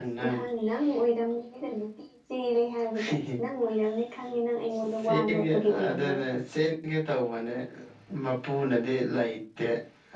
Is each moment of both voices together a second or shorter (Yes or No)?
No